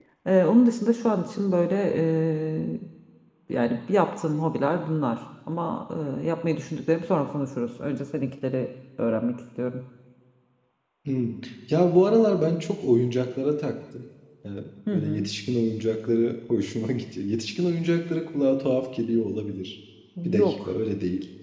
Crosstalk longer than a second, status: none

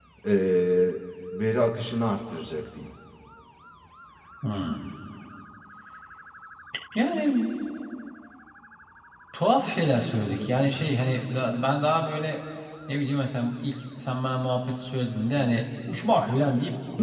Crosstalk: none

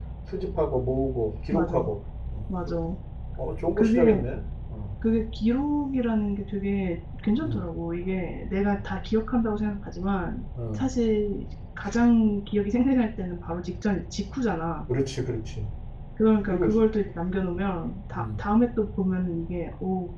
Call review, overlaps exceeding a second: none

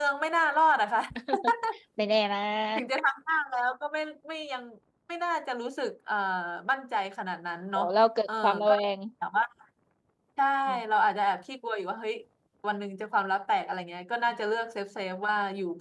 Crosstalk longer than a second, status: none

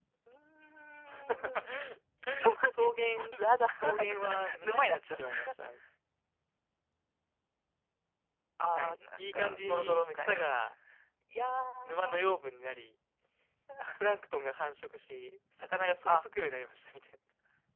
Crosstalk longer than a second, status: present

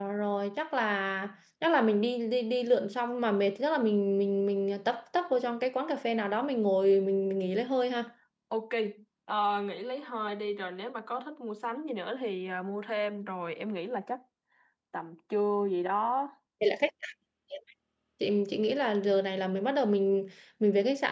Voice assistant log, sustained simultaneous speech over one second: none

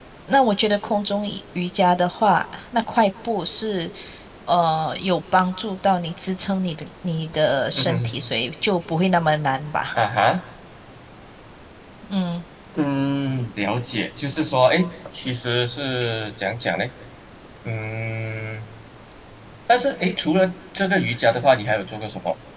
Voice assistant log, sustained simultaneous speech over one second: none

